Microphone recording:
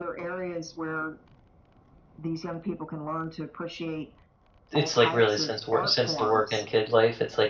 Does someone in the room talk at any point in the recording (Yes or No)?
Yes